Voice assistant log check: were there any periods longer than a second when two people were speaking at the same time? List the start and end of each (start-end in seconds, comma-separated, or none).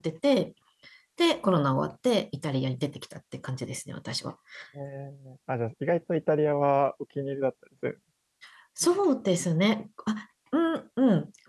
none